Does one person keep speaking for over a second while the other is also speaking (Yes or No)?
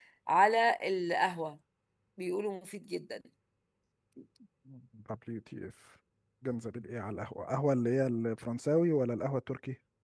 No